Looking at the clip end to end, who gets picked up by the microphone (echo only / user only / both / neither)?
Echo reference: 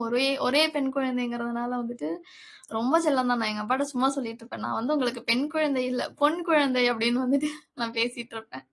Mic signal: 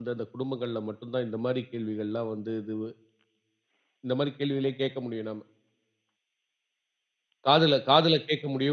user only